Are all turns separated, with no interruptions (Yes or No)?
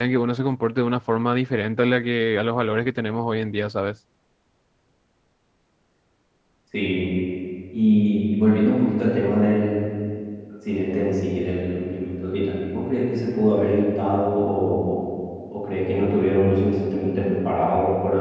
Yes